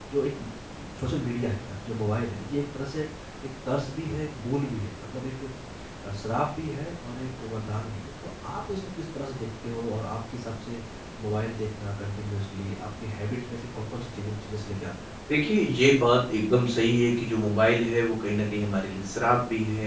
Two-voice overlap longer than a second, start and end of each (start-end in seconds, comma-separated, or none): none